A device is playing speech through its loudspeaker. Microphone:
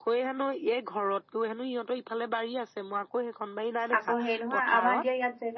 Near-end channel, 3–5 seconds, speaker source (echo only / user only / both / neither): both